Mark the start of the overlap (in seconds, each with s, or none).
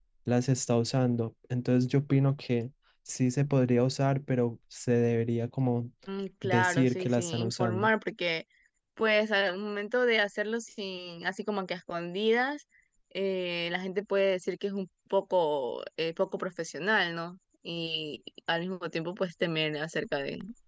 6.4 s